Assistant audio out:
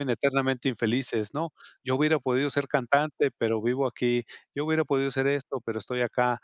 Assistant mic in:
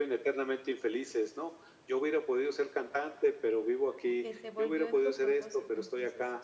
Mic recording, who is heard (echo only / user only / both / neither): both